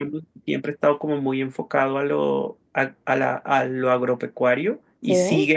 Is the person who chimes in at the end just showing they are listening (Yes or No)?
Yes